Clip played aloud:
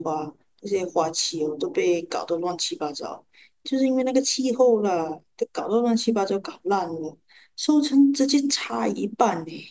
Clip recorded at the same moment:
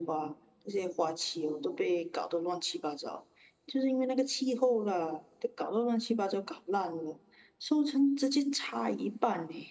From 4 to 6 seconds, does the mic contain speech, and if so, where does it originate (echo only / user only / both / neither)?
echo only